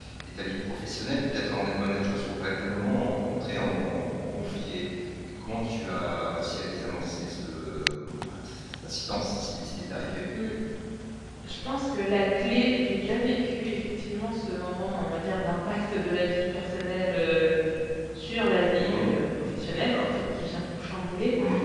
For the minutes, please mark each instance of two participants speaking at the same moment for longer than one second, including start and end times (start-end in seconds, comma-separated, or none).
none